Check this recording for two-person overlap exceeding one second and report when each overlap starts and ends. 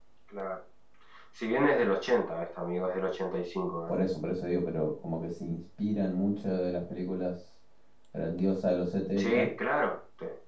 none

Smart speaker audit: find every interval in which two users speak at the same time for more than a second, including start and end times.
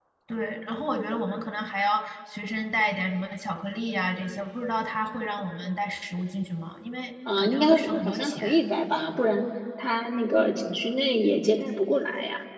7.4-8.6

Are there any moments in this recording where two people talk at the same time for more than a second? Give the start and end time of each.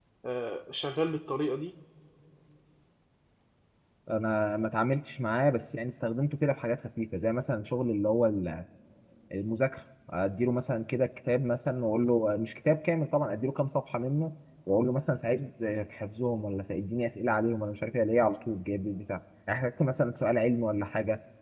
none

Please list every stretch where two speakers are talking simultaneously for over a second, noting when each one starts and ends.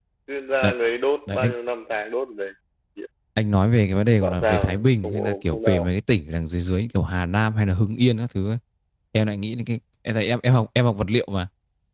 4.2-5.9

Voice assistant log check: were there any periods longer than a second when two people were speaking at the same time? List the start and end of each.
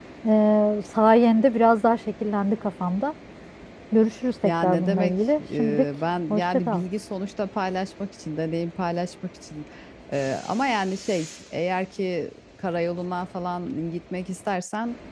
4.4-5.8

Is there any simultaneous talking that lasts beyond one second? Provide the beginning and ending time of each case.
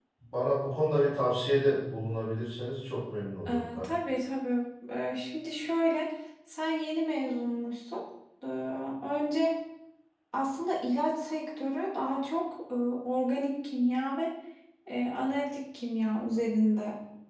none

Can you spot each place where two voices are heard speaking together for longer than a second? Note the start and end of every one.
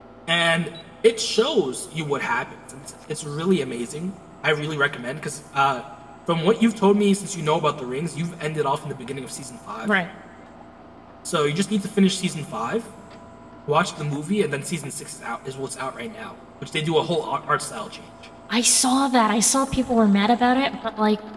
none

